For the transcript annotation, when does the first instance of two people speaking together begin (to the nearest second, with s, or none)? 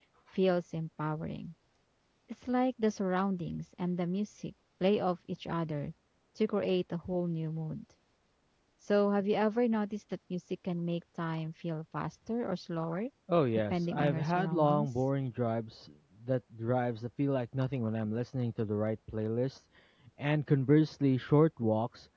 14 s